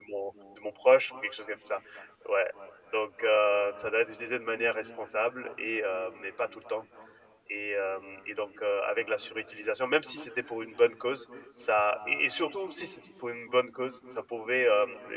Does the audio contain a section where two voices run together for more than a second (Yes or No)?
No